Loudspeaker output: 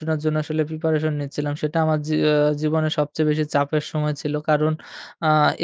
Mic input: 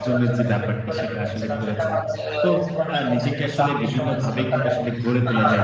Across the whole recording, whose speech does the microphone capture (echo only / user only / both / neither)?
both